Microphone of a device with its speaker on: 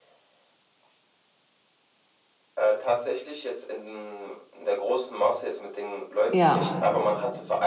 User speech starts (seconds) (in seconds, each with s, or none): 6.3 s